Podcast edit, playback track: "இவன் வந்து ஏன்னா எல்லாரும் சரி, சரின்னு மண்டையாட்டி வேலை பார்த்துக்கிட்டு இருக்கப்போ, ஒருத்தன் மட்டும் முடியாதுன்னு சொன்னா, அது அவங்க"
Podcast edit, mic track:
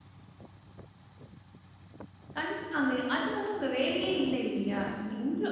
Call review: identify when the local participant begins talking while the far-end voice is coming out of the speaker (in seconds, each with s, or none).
2.4 s